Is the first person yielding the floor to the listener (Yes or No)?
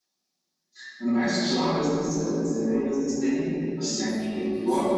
Yes